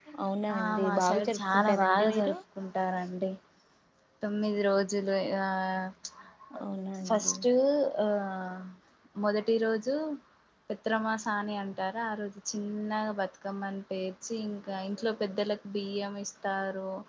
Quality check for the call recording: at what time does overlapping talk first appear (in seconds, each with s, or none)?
0.5 s